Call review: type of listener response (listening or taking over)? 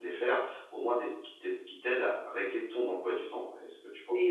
taking over